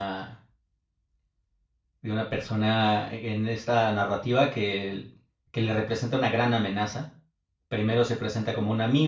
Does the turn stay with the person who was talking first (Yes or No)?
Yes